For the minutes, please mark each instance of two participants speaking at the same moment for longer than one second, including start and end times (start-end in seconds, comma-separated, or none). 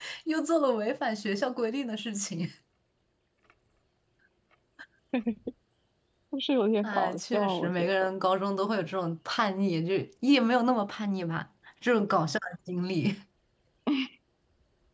6.8-8.1